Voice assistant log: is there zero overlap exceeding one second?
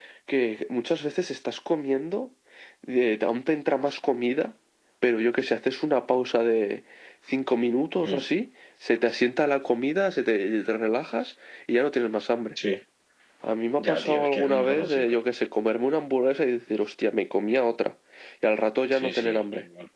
No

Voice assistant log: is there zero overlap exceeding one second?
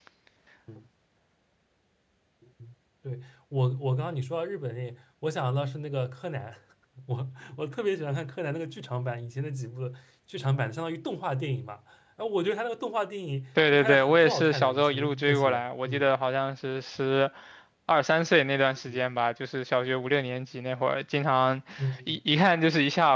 No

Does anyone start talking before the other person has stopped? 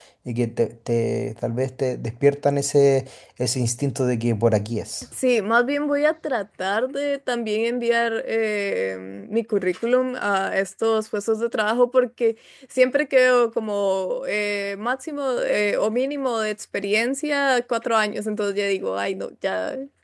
No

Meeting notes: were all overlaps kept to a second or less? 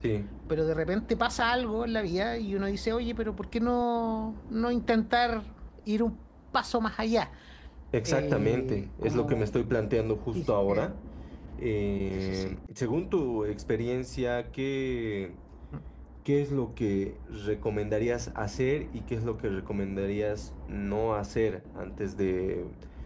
No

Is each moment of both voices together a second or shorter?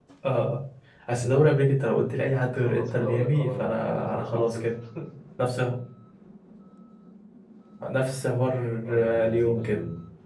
No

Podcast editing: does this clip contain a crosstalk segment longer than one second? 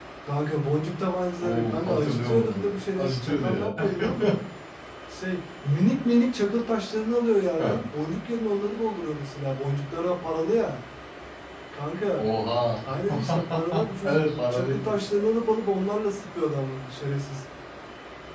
Yes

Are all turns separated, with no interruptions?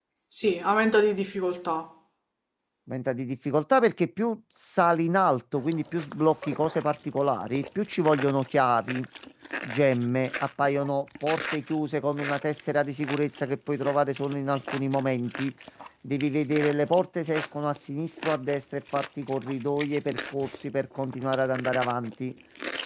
Yes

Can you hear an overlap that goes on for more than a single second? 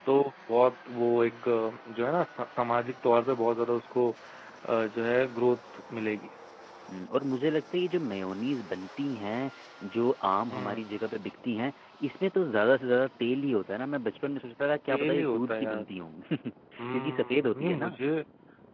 Yes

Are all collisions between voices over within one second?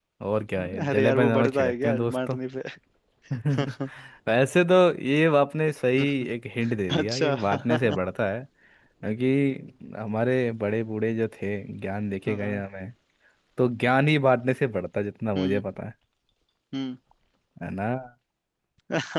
No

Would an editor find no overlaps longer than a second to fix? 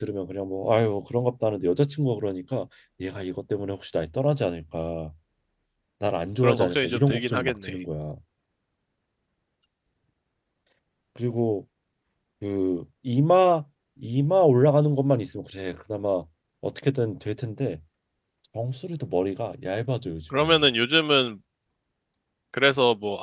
No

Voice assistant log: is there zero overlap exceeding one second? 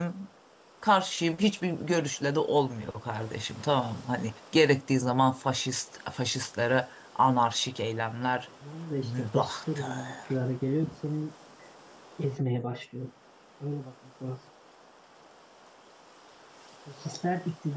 No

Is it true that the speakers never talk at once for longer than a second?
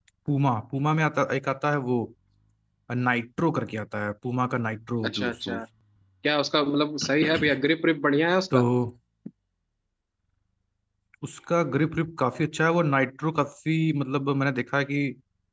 Yes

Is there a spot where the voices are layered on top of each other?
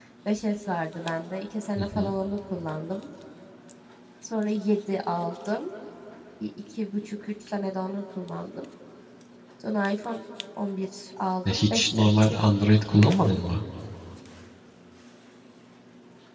Yes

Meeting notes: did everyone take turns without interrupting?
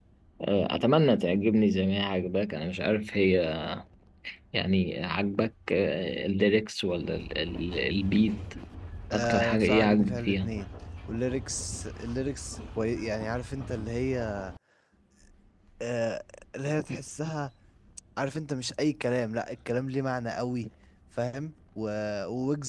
No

